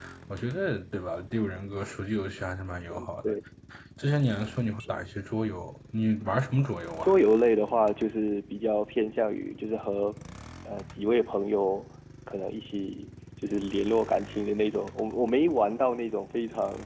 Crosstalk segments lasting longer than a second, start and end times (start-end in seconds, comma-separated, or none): none